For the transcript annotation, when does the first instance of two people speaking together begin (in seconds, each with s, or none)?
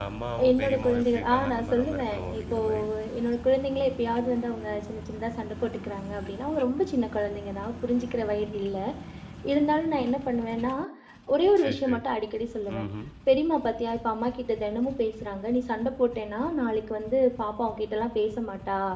0.5 s